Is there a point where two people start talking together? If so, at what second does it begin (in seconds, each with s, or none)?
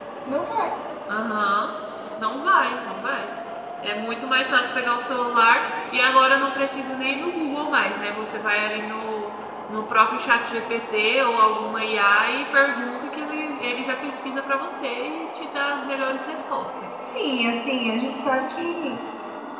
none